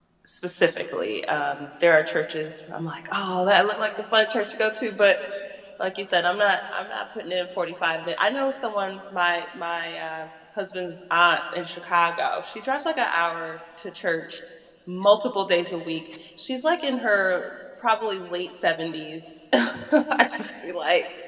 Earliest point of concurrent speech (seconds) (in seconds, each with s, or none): none